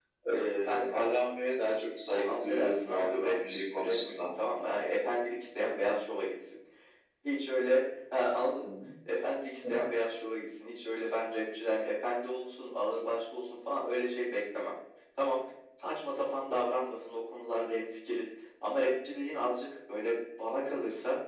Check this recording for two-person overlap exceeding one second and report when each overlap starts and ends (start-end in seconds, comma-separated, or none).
2.2-4.2